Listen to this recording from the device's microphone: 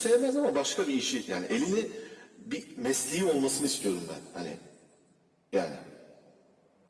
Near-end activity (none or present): none